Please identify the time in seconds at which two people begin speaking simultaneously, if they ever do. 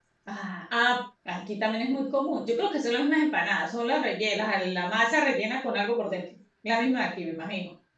none

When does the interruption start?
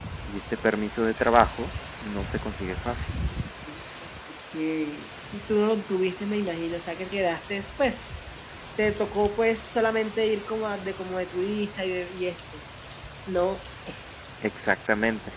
none

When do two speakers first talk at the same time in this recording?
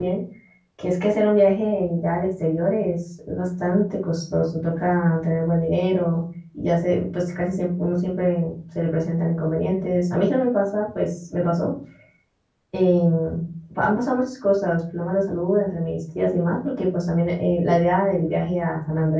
none

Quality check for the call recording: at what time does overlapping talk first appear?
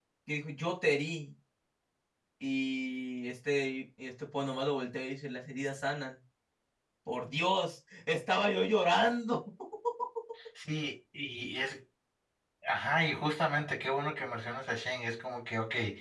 none

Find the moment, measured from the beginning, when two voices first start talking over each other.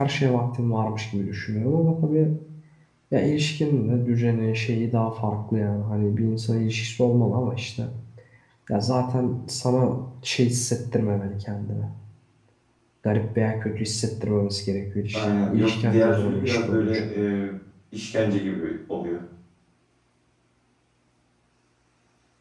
15.1 s

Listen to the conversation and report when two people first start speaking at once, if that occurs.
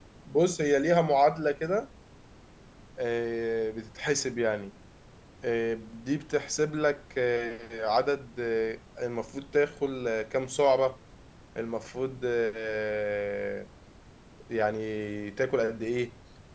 none

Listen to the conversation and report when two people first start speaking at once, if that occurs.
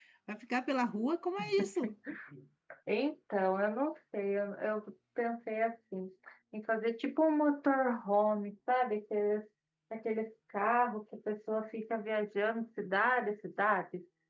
none

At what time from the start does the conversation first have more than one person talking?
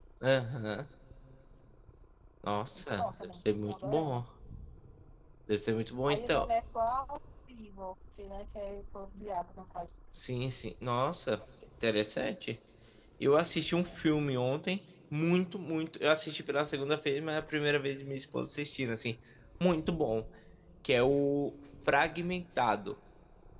2.8 s

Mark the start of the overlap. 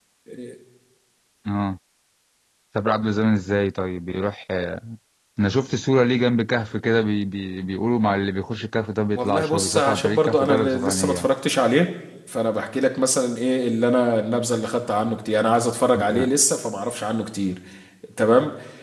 9.1 s

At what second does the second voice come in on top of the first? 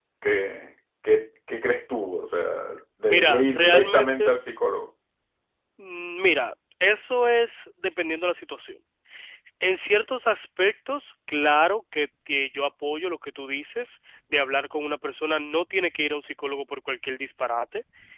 3.1 s

